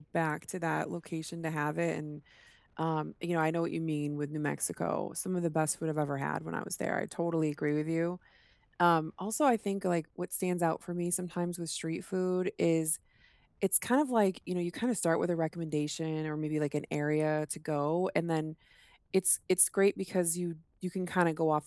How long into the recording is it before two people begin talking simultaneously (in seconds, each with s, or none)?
none